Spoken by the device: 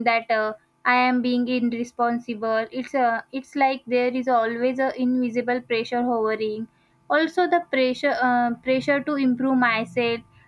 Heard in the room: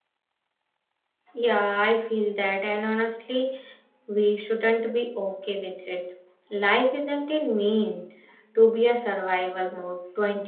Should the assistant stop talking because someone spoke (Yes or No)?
Yes